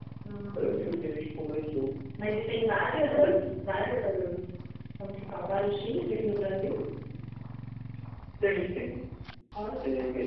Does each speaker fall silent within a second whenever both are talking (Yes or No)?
Yes